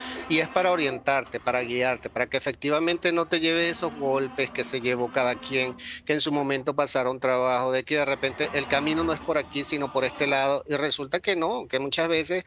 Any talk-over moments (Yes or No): No